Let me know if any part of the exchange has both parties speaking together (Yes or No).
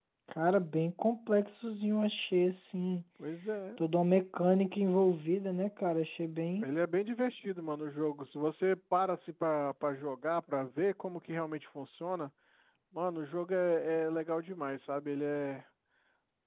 No